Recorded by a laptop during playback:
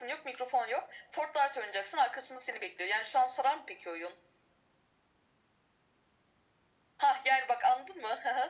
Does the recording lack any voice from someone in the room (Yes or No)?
Yes